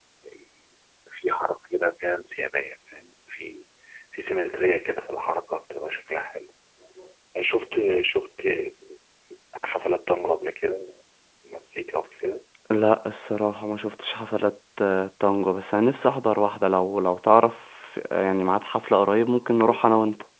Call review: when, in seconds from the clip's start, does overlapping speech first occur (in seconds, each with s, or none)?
none